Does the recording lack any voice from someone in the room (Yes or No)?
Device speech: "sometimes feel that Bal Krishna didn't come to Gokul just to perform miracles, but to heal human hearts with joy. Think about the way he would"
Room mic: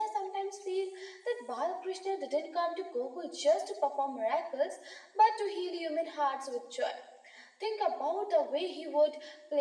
Yes